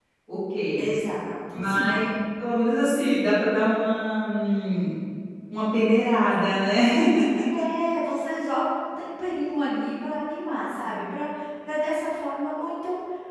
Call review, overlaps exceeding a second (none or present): none